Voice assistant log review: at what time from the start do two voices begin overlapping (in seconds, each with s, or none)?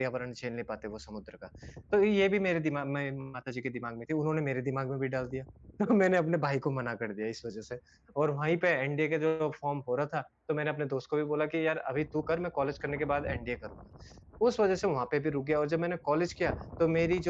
none